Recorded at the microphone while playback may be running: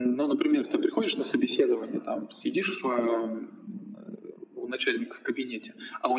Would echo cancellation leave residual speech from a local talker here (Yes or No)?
No